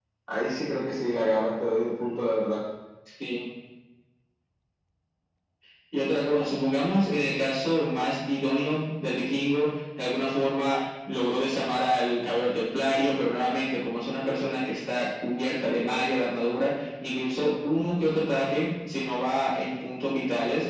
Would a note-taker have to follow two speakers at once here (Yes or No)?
No